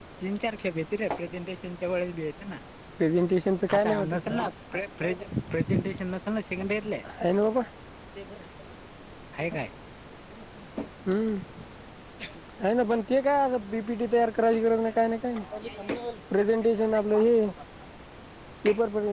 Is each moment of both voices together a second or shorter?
Yes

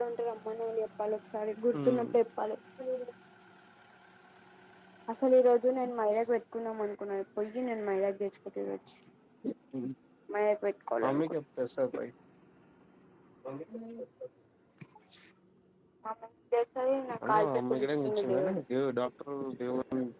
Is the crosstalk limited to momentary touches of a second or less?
No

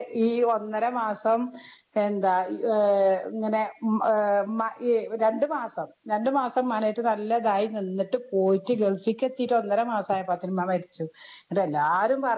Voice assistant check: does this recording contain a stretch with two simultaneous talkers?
No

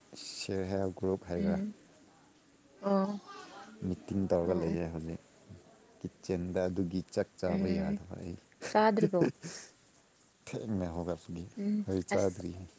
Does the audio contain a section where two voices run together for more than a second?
No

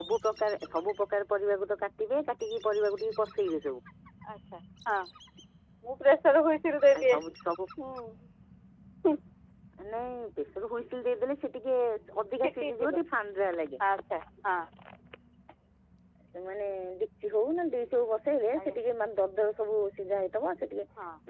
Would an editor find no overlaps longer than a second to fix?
Yes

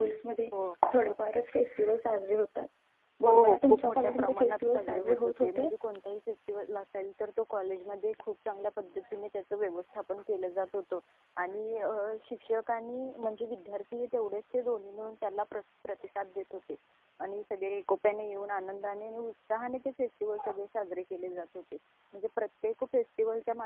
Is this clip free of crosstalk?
No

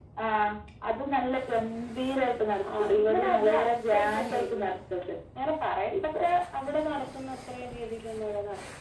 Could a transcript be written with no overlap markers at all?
No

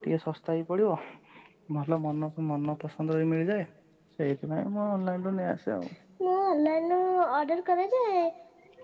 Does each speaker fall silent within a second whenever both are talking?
Yes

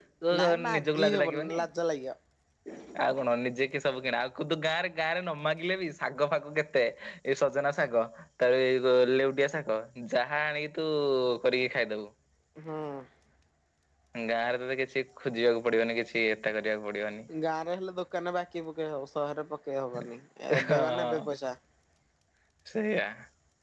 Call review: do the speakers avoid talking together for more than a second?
No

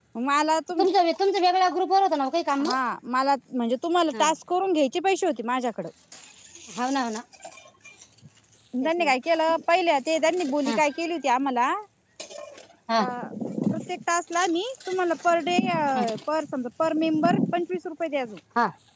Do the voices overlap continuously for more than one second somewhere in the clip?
No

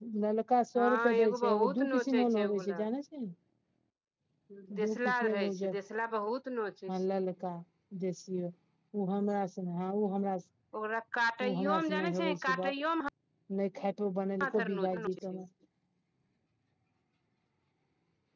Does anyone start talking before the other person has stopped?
Yes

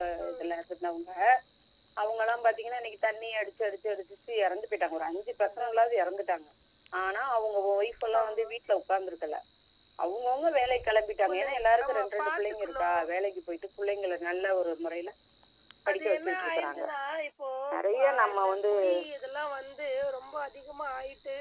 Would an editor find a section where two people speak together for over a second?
Yes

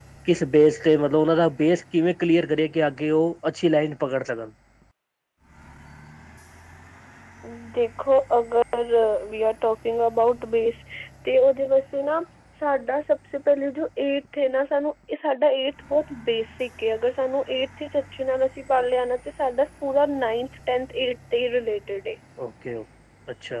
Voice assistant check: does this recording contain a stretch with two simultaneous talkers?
No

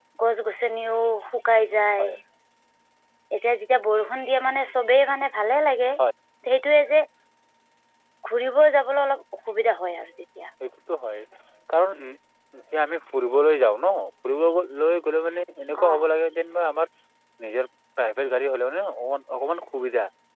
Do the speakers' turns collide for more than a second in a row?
No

